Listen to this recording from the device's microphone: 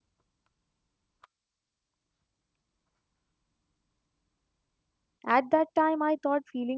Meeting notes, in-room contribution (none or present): present